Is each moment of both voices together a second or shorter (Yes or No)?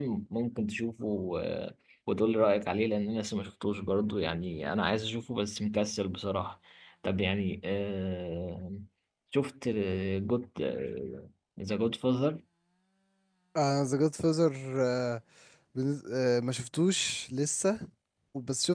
Yes